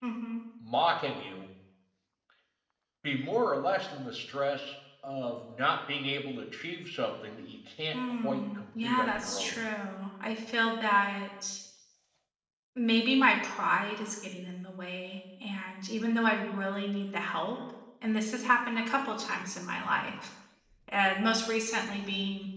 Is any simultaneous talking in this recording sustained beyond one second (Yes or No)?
Yes